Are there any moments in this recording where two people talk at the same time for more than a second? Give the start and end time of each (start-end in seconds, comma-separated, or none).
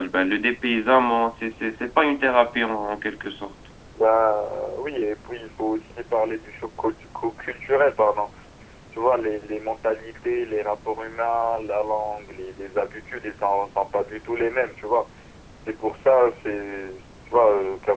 none